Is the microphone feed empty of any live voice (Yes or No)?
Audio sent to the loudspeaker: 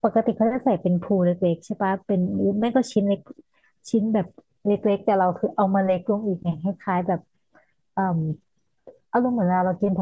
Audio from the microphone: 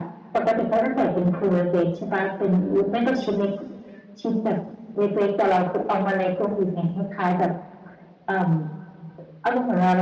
Yes